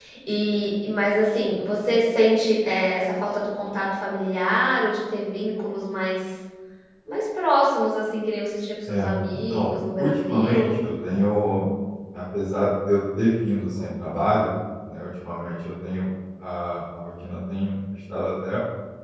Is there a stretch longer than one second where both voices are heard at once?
Yes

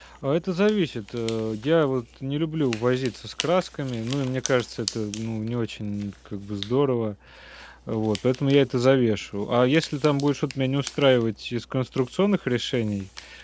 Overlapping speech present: No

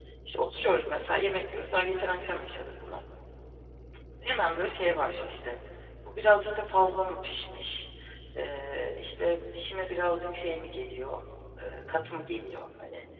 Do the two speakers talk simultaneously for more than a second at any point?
No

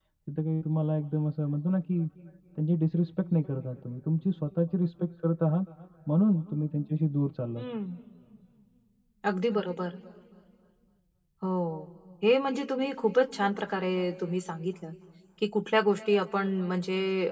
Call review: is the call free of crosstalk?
Yes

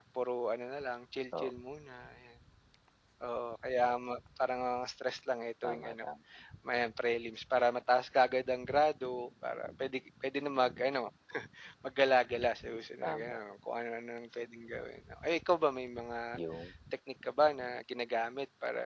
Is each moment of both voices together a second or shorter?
Yes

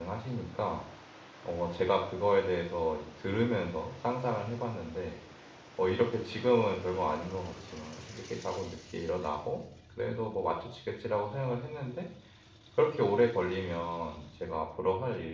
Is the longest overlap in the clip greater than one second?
No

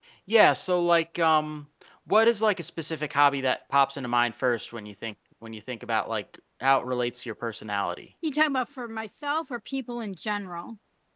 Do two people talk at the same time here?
No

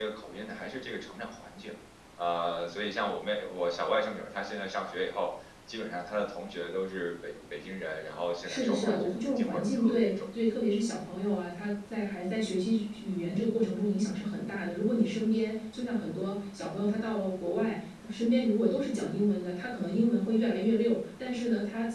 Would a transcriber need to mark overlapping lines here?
Yes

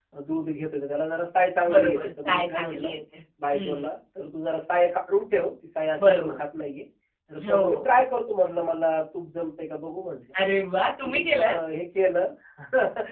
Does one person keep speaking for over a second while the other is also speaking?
Yes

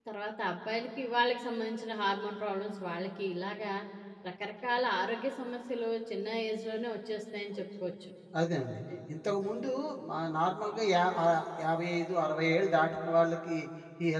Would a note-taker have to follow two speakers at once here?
No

